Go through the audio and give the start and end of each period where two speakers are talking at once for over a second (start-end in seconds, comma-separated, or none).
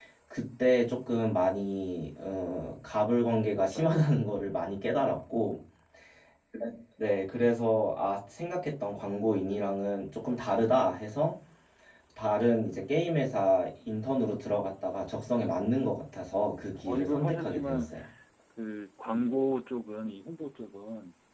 16.5-17.9